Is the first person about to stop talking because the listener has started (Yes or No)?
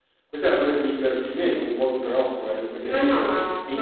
Yes